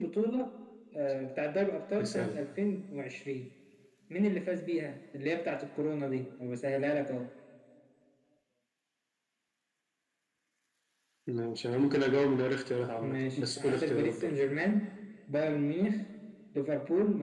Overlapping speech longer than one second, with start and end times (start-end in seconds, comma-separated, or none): 13.0-14.4